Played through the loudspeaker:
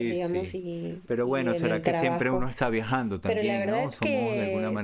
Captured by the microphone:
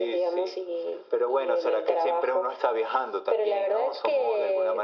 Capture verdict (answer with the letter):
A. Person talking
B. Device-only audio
B